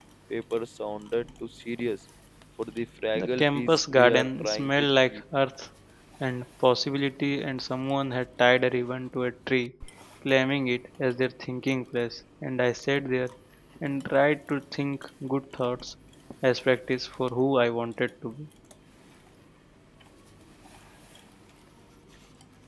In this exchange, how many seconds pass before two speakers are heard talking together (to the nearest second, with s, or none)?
3 s